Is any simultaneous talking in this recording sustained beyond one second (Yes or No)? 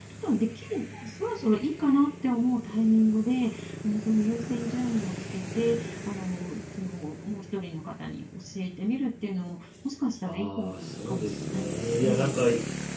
Yes